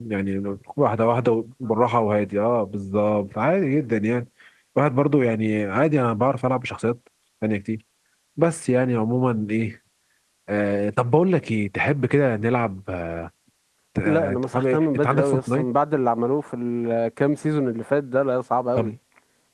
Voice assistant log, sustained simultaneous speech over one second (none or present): present